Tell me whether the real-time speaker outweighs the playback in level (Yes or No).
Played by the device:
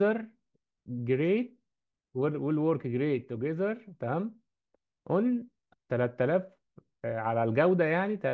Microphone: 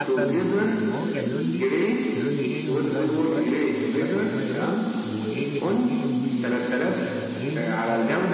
No